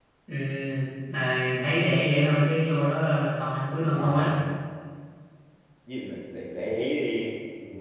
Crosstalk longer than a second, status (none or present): none